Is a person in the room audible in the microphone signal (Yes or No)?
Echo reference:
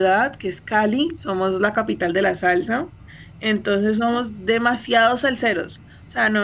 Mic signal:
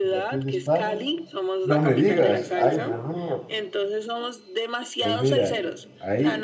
Yes